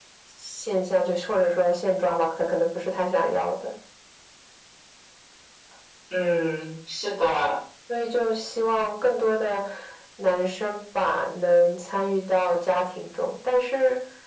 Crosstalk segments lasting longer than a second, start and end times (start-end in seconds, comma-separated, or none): none